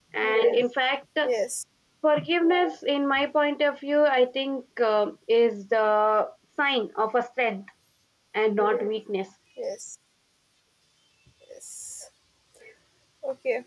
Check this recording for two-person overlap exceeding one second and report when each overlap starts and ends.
none

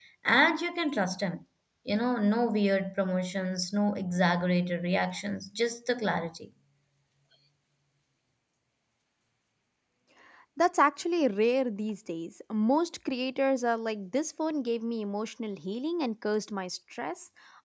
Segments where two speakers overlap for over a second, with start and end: none

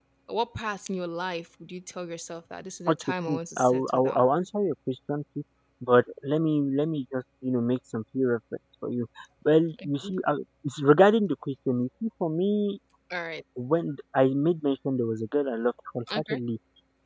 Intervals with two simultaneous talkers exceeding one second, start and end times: 2.9-4.2

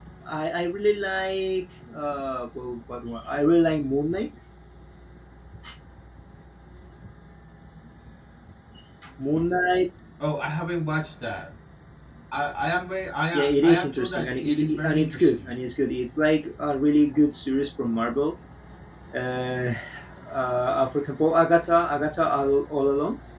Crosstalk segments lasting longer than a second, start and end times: 13.3-15.6

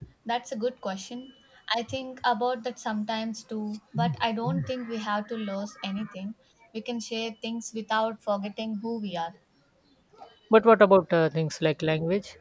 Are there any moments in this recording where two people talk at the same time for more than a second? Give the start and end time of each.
none

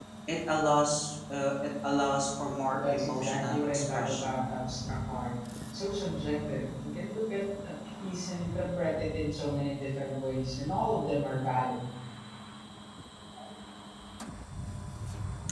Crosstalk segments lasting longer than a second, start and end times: 2.7-4.4

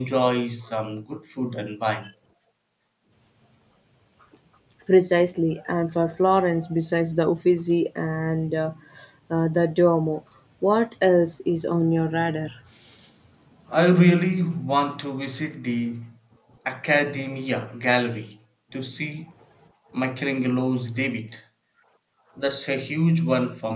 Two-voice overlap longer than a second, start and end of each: none

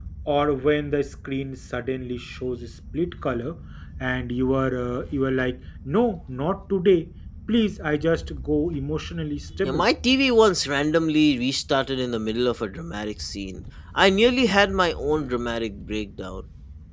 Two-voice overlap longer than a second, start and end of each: none

